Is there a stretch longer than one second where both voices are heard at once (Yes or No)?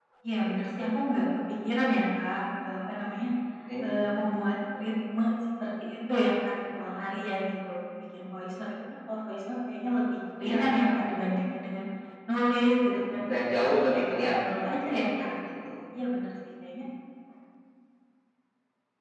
Yes